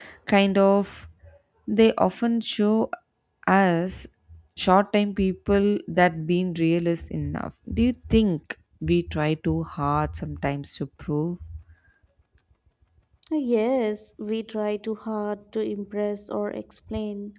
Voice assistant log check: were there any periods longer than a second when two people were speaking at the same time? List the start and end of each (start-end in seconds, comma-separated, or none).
none